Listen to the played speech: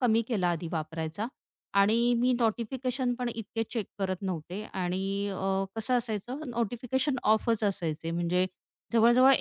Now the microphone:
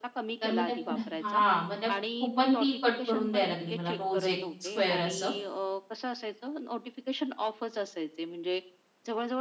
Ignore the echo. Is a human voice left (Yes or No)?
Yes